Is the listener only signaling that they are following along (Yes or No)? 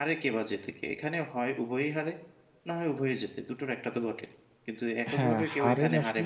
No